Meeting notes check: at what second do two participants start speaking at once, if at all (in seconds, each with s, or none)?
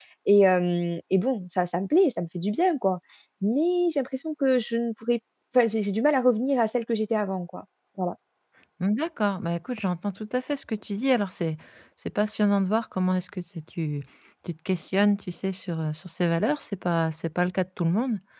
none